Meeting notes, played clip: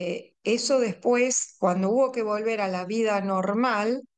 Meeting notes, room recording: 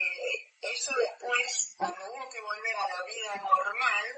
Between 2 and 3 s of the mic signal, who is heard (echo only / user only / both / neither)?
echo only